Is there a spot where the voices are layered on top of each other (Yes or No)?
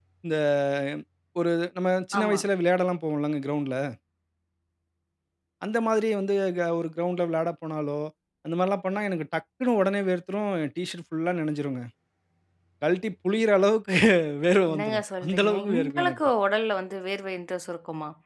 Yes